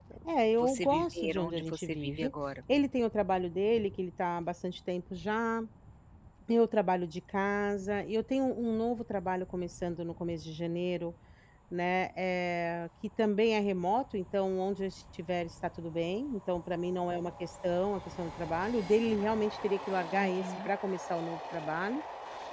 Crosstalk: present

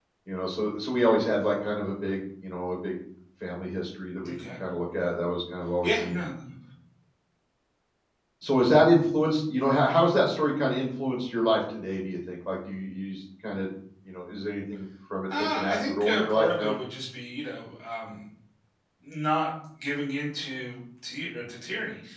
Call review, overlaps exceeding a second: present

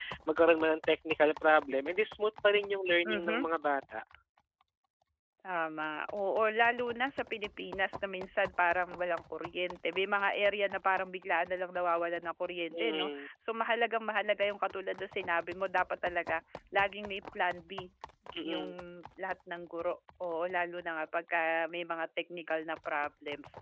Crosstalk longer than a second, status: none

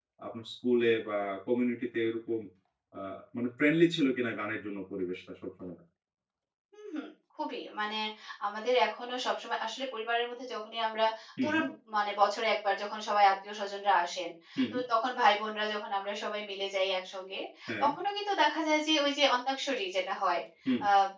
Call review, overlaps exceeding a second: none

